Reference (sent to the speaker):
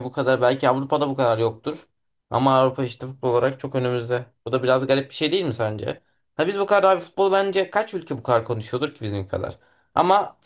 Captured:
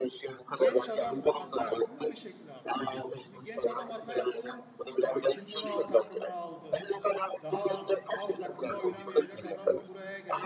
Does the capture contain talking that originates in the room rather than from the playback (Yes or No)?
Yes